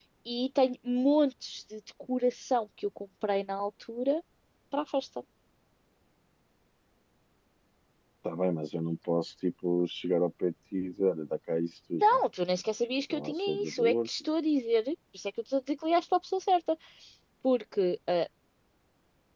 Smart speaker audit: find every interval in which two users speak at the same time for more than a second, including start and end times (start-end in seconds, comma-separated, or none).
13.1-14.3